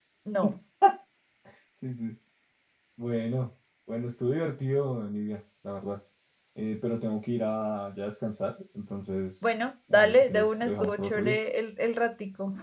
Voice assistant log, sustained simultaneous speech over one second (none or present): present